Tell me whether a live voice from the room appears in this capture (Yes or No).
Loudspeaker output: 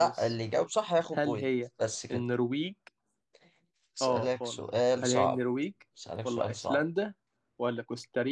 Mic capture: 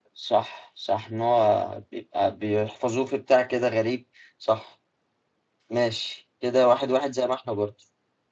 Yes